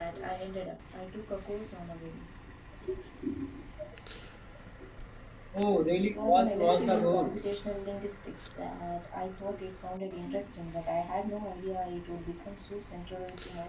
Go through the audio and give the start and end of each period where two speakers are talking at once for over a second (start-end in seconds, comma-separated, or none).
6.0-7.7